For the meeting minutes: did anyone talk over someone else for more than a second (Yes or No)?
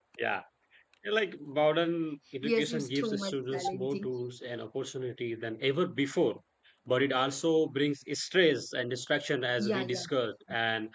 Yes